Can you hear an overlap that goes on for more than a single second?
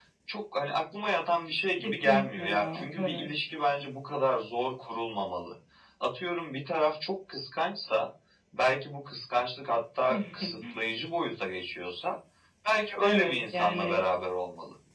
Yes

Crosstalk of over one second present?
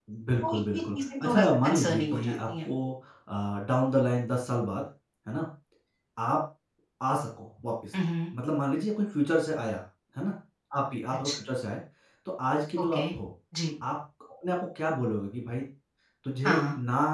Yes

